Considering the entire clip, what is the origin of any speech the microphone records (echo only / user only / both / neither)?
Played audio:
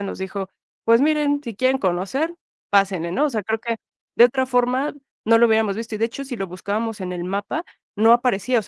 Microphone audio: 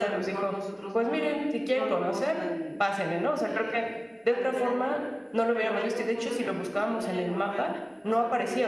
both